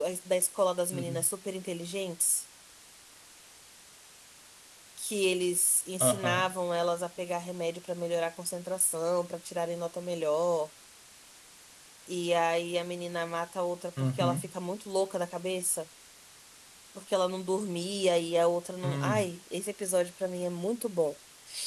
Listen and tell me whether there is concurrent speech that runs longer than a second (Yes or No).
No